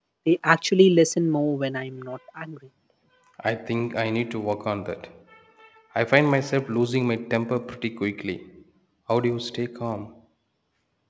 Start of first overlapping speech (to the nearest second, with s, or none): none